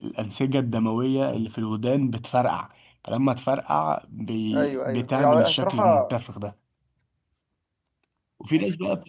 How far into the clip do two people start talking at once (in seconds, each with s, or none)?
4.5 s